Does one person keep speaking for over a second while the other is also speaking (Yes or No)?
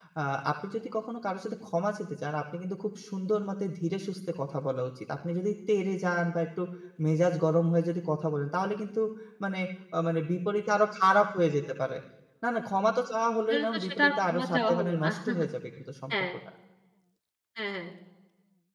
Yes